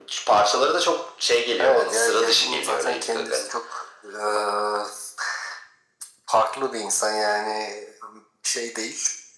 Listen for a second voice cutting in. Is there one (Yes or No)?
Yes